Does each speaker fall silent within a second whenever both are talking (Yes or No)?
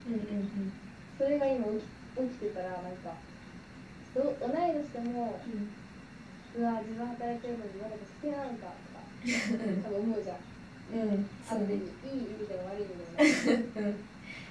Yes